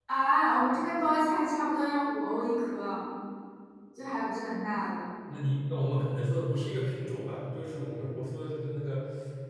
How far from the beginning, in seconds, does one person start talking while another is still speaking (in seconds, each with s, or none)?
none